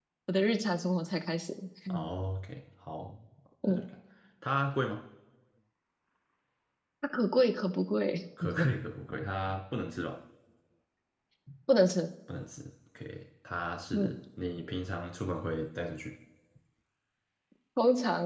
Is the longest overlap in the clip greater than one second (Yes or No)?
No